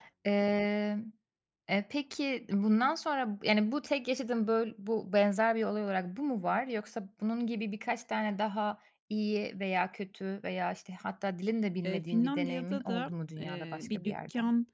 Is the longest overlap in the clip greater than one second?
Yes, from 11.8 s

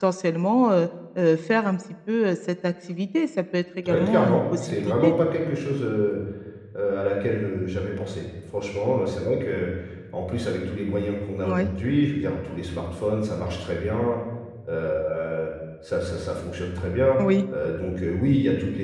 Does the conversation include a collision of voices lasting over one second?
Yes, from 3.9 s

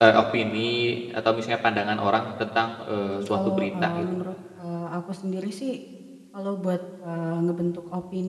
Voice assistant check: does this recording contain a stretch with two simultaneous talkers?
Yes, from 3.0 s

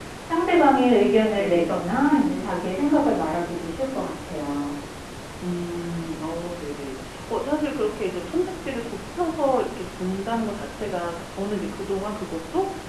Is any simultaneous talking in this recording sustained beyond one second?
No

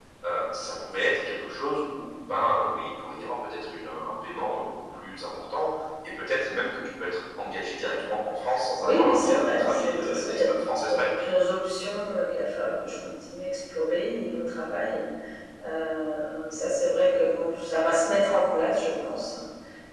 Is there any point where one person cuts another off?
Yes, from 8.8 s

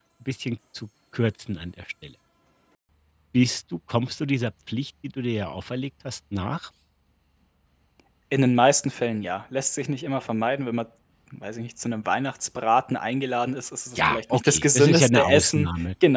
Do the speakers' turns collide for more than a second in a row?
Yes, from 14.0 s

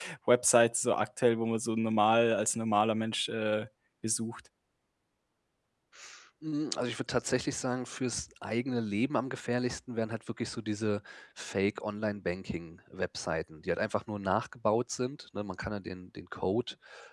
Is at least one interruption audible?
No

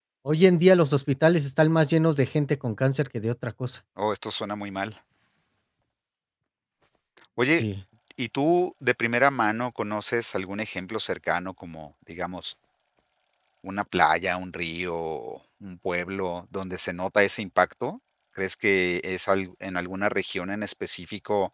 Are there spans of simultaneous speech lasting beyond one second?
No

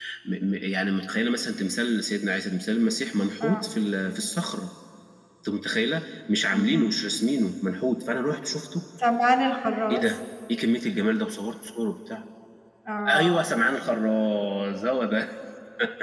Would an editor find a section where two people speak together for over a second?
No

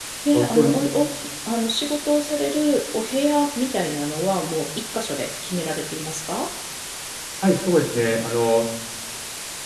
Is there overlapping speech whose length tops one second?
No

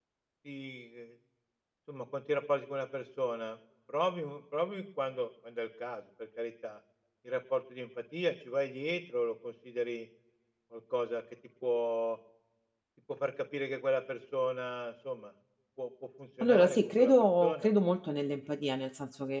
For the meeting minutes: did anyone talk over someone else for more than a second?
Yes, from 16.4 s

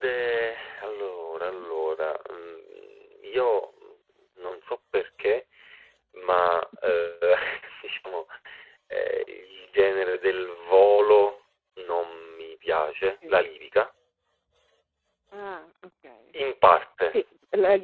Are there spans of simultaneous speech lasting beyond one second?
No

